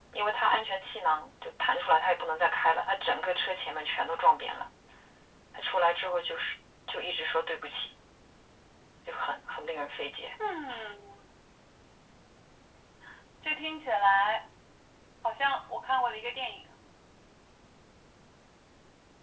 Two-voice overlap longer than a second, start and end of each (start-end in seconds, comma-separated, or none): none